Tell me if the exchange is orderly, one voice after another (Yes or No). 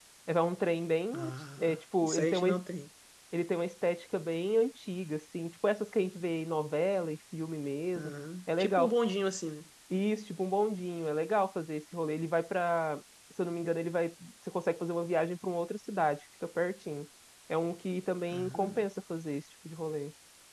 No